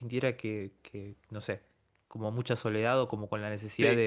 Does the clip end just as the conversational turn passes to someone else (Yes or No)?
No